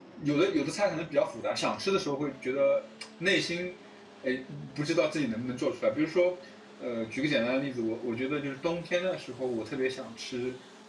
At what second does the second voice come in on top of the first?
none

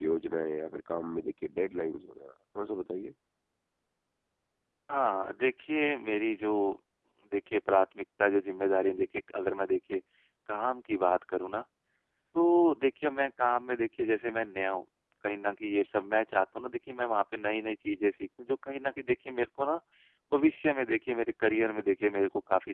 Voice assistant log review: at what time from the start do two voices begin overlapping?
none

